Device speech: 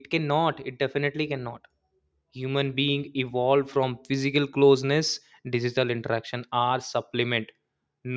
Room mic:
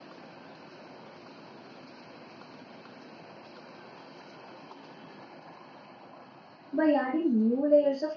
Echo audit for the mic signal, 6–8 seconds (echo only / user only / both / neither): user only